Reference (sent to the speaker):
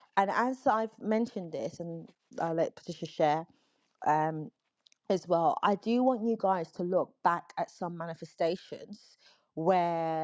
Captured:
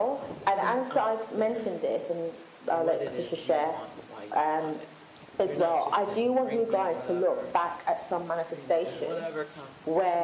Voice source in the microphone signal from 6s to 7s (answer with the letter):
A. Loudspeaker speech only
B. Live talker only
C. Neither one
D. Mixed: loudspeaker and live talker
D